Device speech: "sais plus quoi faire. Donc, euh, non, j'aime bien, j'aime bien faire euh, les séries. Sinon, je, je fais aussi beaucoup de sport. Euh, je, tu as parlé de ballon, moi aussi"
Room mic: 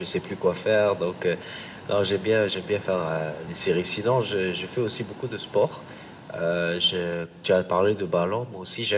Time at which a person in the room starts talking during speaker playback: none

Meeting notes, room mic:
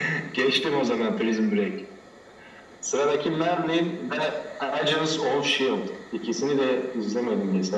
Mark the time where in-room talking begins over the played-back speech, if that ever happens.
none

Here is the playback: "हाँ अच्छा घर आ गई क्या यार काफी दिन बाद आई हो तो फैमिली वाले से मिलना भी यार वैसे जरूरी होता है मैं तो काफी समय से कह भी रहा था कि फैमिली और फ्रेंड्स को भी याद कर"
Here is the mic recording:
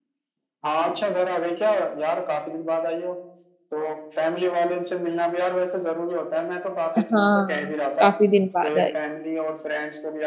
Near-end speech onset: 7.0 s

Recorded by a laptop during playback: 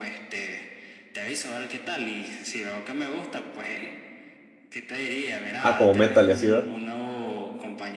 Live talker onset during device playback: 5.6 s

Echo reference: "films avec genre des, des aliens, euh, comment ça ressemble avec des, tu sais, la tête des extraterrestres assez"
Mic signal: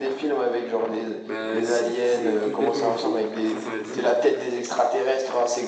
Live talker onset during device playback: 1.2 s

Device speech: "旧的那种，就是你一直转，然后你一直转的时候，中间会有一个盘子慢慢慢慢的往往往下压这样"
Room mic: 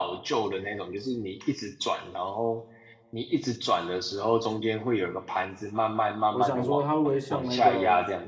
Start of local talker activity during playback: 6.3 s

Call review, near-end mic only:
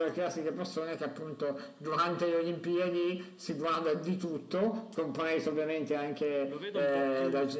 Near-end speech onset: 6.5 s

